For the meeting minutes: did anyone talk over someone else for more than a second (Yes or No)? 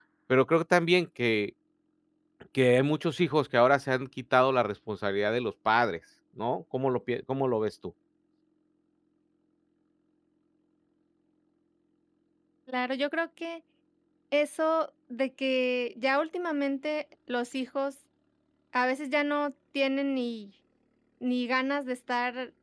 No